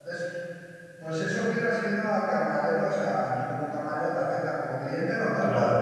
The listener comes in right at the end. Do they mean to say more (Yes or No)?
Yes